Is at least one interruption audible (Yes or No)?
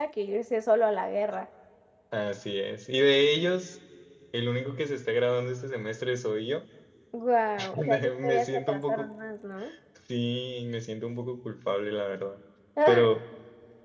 Yes